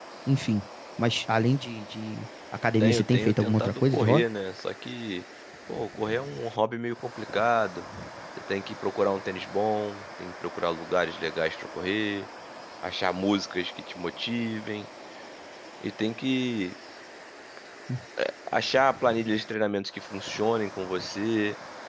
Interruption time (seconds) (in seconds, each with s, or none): 2.8 s